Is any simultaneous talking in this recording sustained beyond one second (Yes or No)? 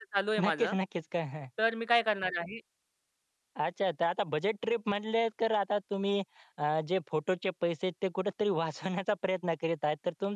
No